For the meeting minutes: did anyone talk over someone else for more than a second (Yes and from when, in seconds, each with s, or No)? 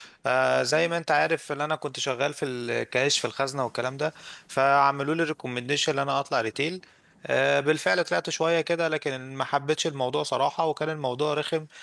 No